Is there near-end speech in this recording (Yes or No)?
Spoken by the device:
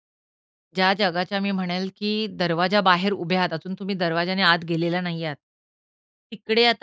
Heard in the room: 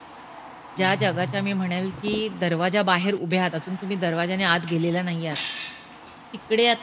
Yes